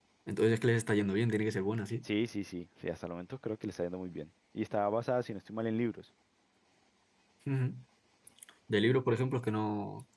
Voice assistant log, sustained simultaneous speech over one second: none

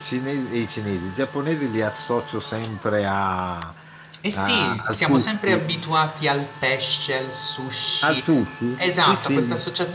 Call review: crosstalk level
present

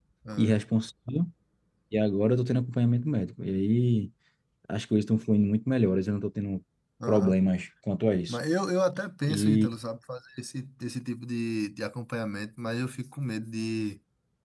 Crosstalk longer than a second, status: none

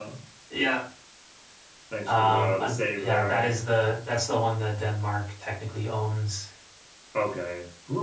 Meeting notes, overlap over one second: present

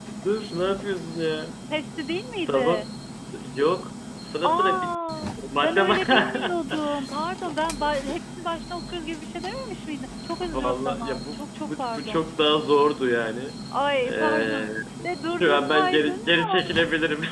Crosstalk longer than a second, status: present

